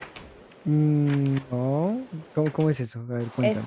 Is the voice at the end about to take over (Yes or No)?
Yes